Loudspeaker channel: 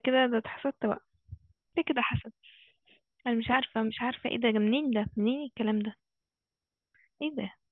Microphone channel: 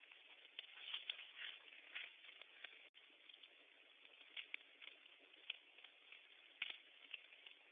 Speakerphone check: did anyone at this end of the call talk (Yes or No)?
No